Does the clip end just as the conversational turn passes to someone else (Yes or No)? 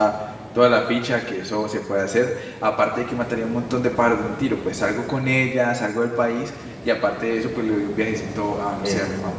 No